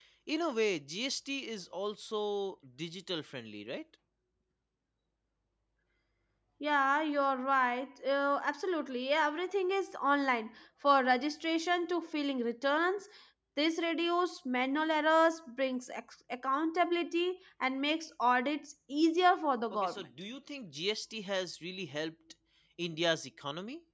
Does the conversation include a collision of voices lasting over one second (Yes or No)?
No